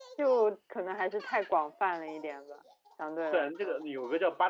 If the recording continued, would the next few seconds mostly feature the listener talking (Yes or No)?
Yes